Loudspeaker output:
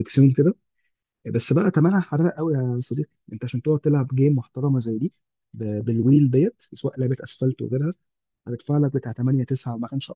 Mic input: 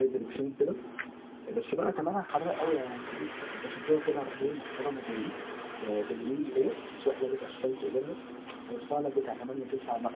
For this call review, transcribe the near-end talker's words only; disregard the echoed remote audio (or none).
مفيش